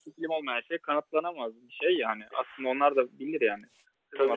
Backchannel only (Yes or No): No